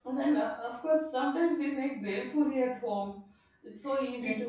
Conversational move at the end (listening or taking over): taking over